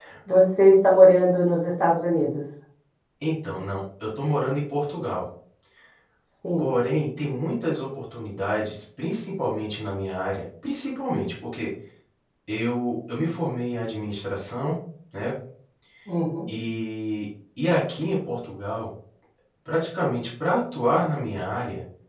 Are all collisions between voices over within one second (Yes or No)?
Yes